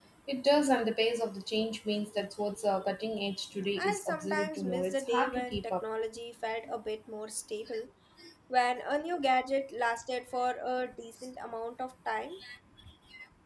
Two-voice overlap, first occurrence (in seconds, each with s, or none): 3.8 s